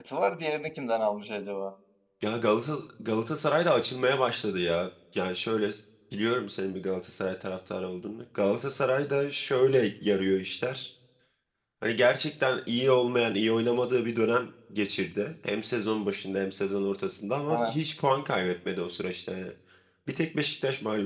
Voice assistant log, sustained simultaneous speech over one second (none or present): none